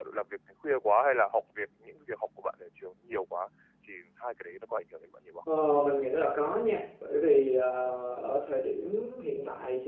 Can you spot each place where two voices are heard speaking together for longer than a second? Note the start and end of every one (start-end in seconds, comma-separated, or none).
none